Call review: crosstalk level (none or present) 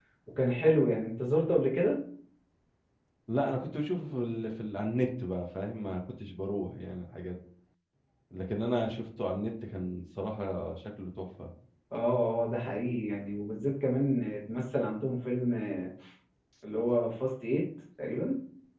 none